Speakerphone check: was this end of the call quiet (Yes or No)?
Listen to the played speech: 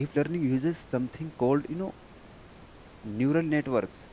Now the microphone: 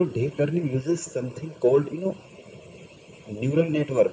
Yes